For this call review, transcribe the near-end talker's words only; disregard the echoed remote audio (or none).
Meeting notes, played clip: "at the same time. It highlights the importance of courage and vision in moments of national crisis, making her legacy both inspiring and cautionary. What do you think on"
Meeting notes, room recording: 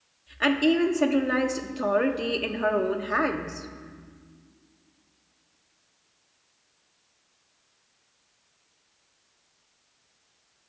and even centralized authority in her own hands.